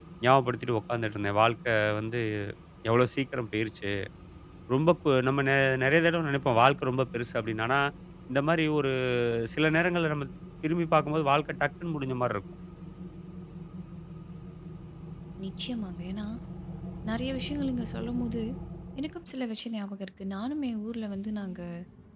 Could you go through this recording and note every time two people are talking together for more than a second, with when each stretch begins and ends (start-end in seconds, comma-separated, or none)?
none